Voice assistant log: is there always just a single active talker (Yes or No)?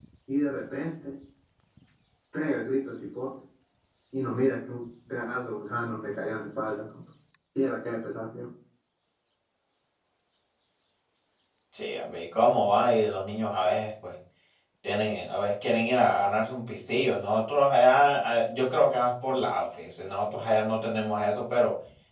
Yes